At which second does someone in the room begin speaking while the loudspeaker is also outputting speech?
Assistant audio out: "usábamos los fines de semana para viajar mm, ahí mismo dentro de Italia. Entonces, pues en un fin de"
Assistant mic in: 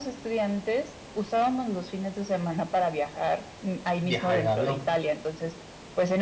4.0 s

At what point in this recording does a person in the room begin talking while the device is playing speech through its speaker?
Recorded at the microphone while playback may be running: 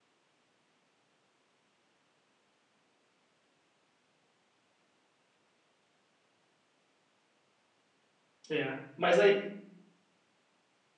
8.5 s

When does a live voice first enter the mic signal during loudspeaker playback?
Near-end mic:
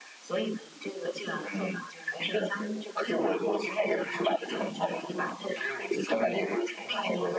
none

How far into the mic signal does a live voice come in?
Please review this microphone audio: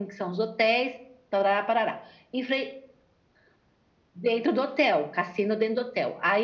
none

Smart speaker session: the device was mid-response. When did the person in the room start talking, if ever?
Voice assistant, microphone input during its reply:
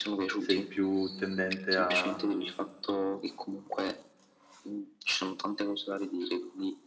0.3 s

